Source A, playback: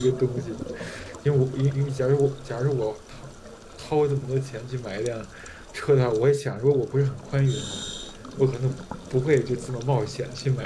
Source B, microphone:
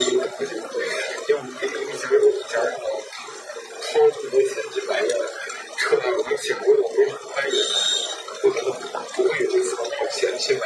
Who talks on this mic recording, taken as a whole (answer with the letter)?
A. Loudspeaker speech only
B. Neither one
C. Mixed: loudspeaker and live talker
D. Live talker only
A